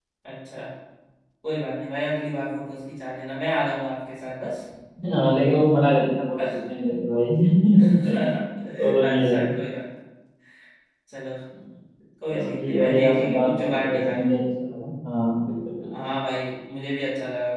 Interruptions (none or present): present